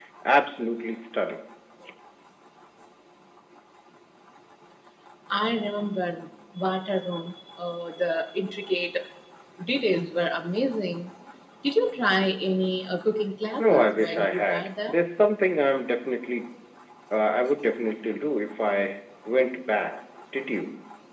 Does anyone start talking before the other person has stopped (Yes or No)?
Yes